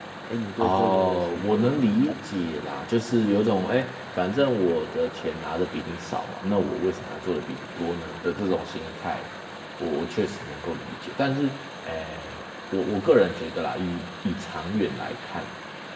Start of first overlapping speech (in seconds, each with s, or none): 0.6 s